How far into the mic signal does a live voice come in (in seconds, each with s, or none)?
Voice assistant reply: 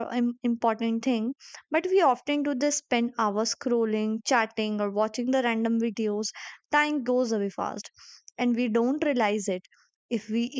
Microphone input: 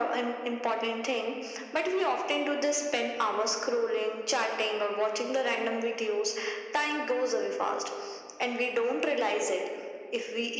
none